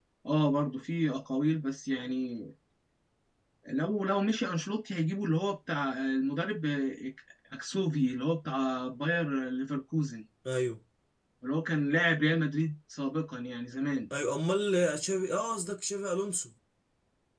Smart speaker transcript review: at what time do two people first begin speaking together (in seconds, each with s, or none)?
none